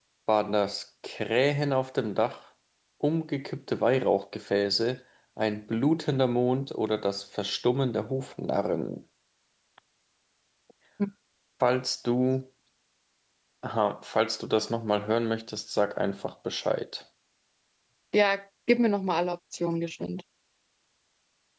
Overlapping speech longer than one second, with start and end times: none

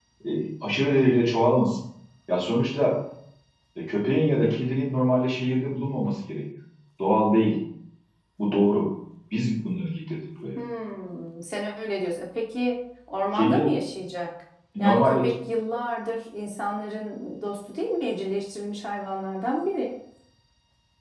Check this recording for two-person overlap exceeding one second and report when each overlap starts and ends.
none

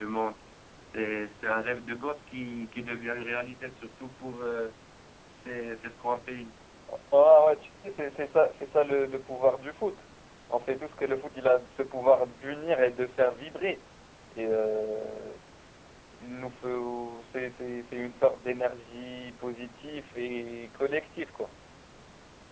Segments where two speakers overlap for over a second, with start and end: none

